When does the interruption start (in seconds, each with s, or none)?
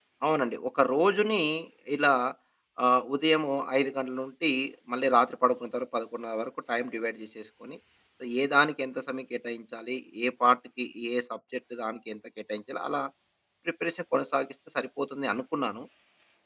none